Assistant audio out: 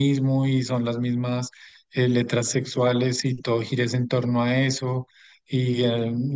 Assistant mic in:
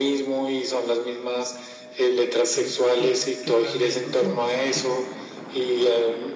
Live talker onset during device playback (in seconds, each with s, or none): 2.5 s